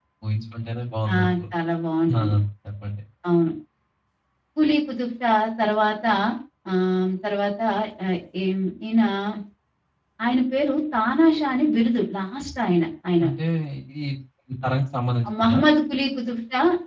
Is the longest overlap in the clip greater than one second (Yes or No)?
No